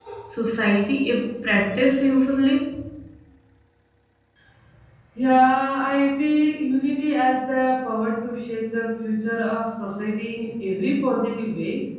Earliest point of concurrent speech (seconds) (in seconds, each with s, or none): none